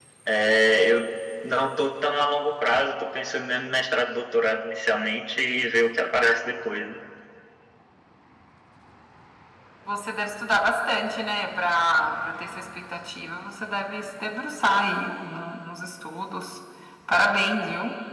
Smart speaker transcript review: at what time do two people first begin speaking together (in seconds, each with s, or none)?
none